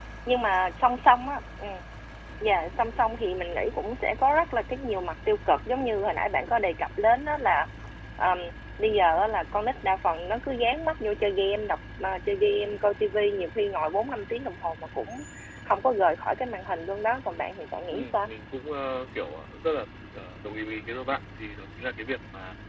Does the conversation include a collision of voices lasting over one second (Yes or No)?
No